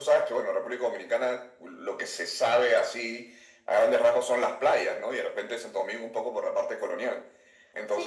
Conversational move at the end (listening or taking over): listening